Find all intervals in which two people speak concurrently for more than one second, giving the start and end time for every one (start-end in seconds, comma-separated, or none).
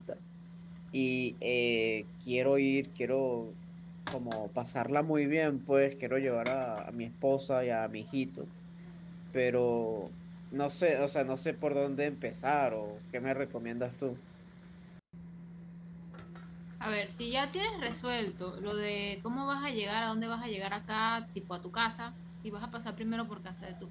none